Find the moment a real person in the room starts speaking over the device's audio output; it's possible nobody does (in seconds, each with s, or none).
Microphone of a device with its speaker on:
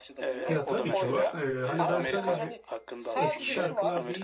0.4 s